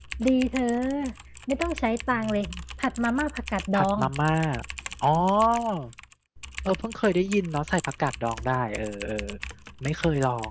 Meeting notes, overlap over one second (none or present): none